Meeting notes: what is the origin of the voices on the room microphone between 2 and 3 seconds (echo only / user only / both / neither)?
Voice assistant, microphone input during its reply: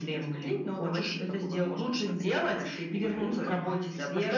echo only